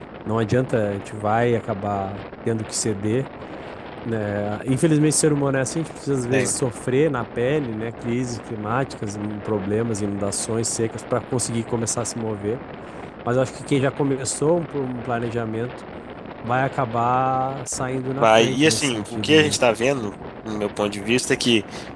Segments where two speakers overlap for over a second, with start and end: 18.2-19.6

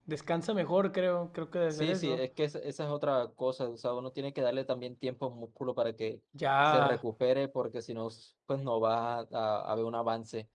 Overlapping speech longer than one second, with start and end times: none

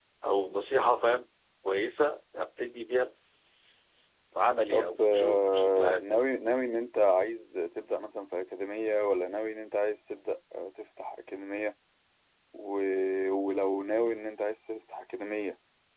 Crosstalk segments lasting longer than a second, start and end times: 4.7-6.2

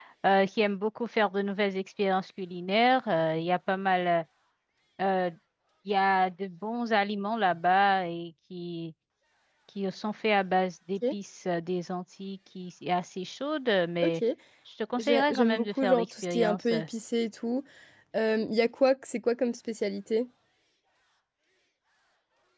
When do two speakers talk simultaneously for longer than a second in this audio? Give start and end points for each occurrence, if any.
15.0-16.8

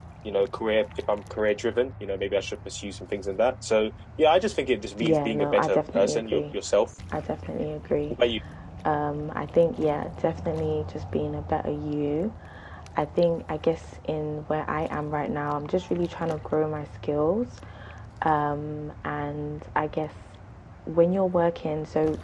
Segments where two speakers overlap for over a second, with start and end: 5.0-6.5

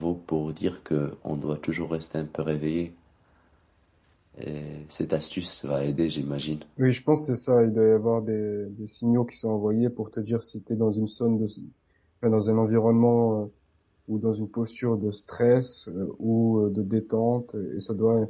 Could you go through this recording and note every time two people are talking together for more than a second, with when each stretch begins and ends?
none

